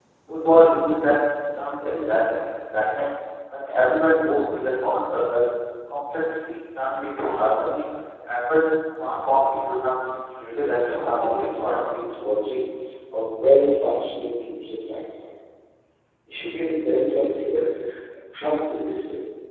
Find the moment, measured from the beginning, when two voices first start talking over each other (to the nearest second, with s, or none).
11 s